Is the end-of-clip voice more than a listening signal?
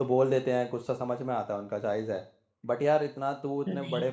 No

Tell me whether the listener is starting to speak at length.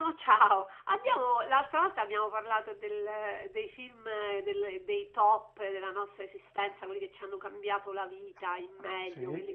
No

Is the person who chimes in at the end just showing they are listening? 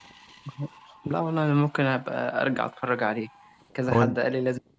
Yes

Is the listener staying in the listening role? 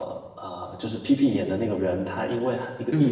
Yes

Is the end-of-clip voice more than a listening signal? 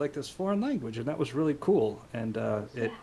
No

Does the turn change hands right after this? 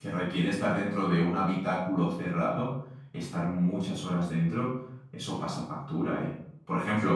No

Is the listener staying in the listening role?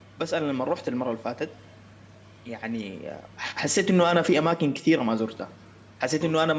Yes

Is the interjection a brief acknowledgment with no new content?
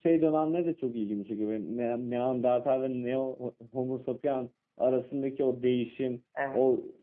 Yes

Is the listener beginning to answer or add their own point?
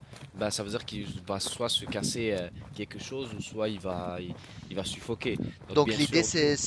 Yes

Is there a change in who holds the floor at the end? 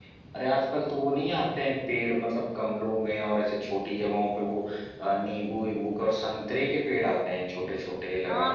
Yes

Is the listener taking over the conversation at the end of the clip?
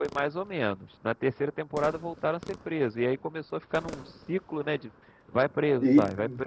Yes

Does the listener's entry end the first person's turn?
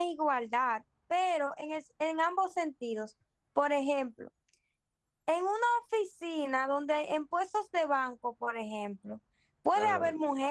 No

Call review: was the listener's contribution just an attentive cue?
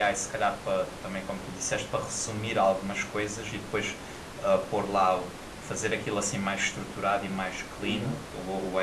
Yes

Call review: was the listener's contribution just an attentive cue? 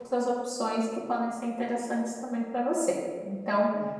Yes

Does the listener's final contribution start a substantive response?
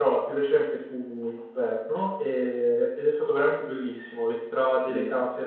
No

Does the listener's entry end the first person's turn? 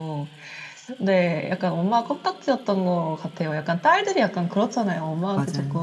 No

